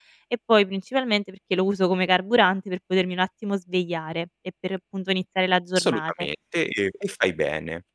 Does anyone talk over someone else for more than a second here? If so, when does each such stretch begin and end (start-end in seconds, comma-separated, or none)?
none